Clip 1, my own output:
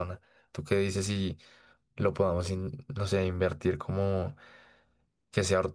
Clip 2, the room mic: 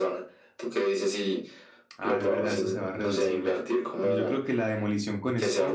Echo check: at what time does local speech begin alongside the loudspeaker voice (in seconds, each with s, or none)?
2.0 s